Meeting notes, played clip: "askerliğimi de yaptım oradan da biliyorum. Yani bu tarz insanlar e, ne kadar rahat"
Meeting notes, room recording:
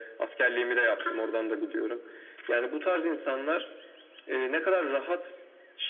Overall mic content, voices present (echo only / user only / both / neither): echo only